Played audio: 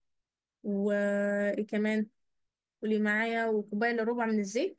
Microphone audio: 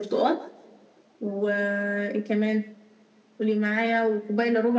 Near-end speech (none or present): none